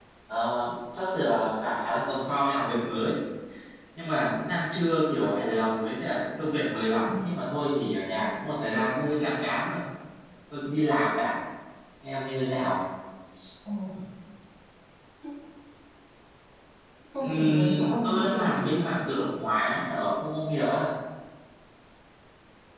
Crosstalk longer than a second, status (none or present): present